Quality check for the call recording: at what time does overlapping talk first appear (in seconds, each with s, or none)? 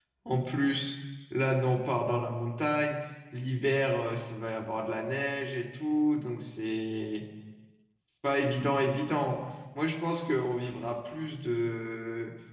none